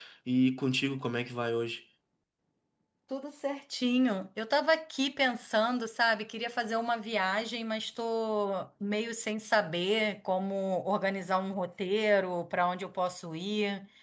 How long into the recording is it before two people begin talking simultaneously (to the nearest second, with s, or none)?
none